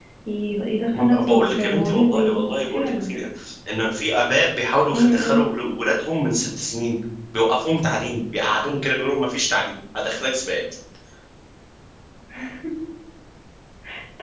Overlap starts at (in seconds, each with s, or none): 0.9 s